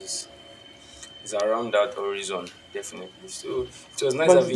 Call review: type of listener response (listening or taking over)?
taking over